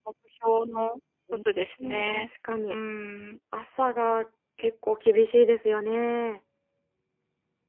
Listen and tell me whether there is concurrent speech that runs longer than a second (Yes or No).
No